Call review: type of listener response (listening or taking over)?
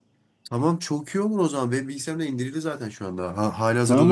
taking over